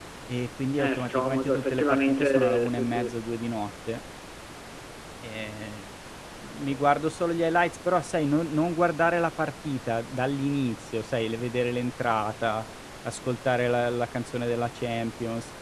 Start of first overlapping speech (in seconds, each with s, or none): 0.8 s